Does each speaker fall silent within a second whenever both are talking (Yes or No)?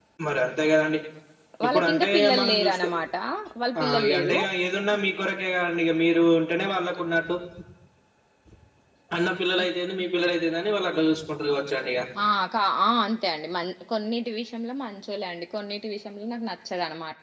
No